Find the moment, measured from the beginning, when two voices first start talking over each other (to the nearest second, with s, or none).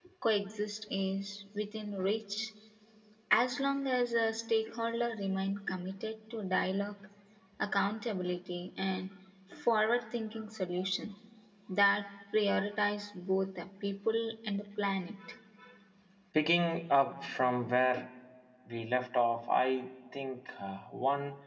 none